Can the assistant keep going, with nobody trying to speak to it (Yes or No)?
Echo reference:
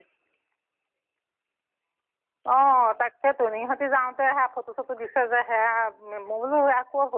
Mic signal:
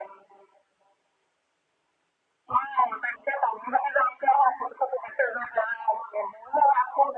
Yes